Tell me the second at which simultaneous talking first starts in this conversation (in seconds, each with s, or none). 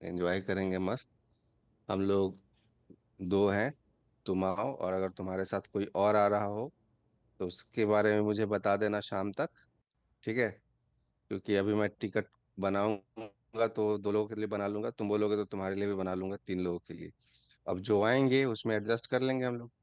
none